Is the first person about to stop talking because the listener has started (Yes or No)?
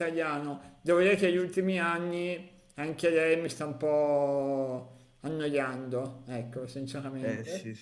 Yes